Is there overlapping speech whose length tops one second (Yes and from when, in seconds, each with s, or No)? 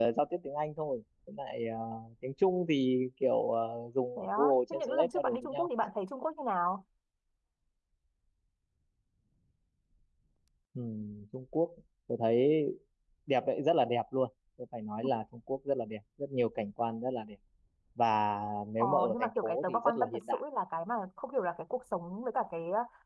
Yes, from 4.2 s